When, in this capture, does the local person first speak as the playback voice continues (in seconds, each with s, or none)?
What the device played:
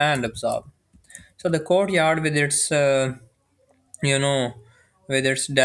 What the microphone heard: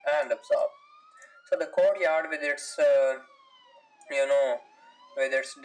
none